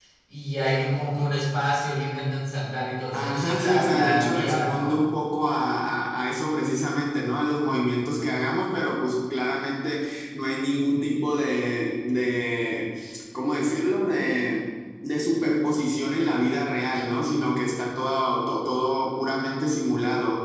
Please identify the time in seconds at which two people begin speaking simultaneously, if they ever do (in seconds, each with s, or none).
3.1 s